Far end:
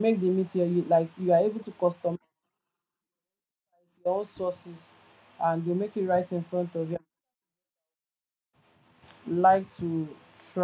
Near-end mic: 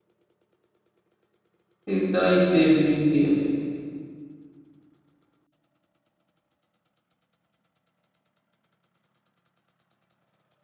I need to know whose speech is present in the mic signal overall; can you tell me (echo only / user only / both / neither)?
user only